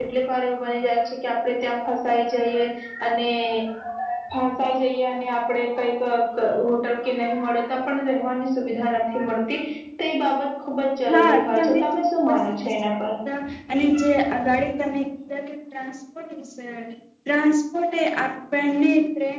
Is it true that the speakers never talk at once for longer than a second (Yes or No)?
No